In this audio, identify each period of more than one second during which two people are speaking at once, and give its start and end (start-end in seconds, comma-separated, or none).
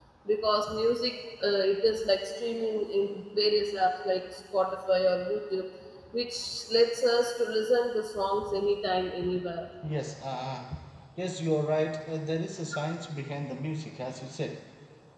none